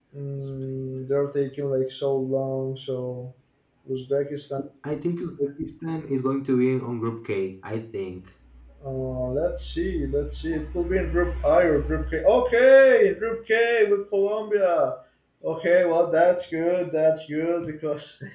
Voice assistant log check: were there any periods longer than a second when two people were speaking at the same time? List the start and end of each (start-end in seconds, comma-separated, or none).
none